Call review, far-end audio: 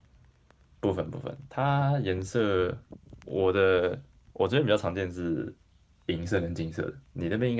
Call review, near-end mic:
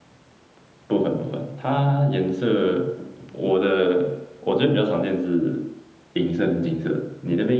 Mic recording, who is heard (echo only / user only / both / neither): echo only